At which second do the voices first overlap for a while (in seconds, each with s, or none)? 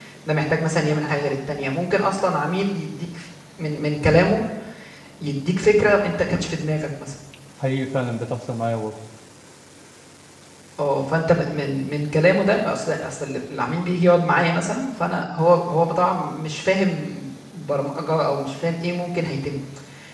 none